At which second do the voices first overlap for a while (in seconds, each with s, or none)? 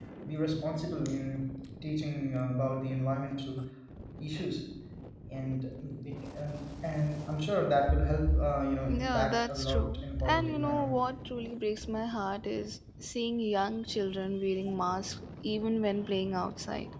8.9 s